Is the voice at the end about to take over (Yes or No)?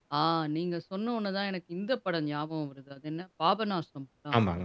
No